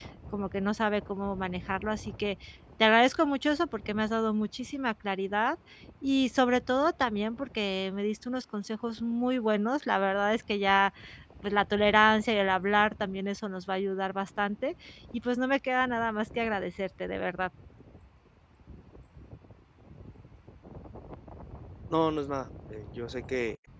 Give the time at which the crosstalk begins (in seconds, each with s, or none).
none